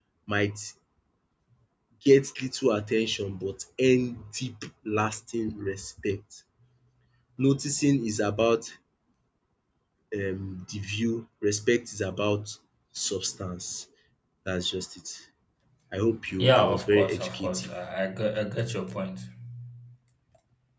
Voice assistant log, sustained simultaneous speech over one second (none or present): present